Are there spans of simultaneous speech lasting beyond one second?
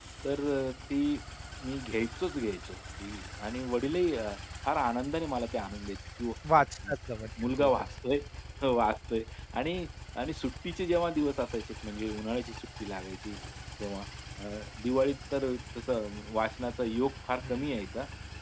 No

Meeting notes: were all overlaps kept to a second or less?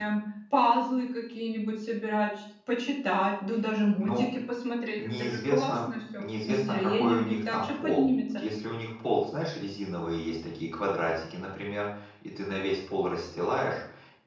No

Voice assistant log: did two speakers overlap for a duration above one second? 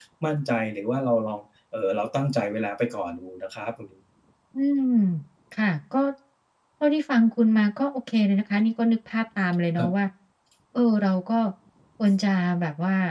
No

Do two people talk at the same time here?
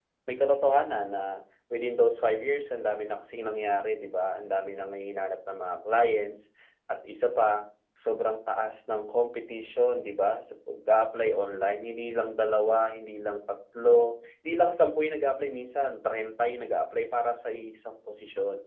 No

